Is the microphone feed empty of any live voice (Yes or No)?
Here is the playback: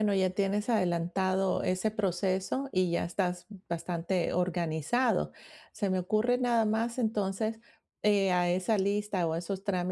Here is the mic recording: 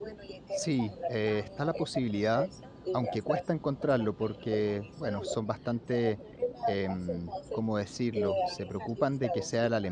No